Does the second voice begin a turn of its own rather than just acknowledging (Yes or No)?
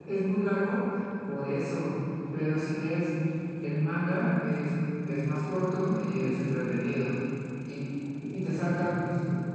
No